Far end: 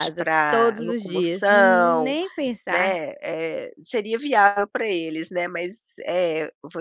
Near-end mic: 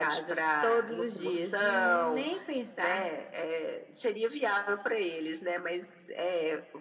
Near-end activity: none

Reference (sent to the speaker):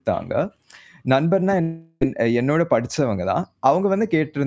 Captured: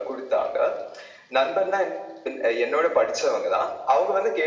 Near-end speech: none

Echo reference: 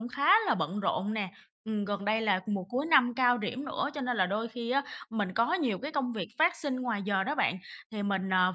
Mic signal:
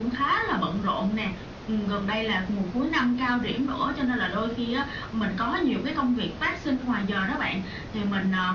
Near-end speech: none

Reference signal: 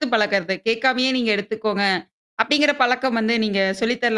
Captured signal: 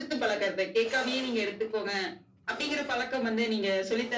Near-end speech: none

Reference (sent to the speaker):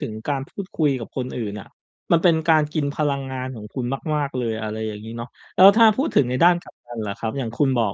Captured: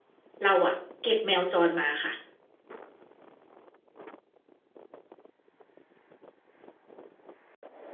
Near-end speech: present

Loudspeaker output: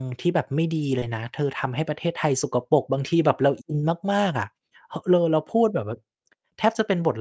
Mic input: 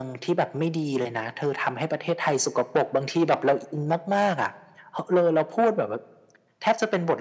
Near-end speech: none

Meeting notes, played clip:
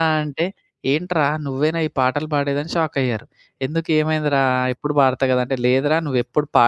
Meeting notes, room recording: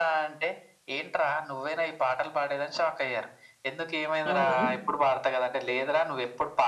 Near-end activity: present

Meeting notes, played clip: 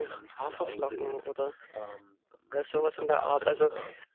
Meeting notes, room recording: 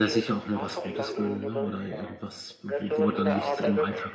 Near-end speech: present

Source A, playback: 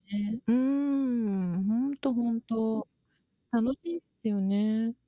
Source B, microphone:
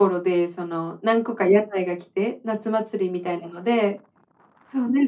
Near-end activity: present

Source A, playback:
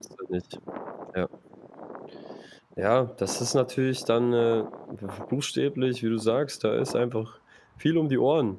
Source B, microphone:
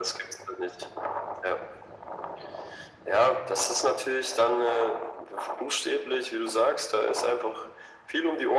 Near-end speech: none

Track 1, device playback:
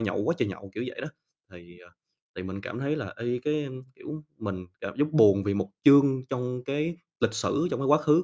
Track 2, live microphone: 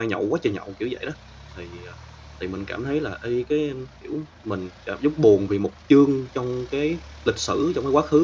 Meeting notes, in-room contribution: none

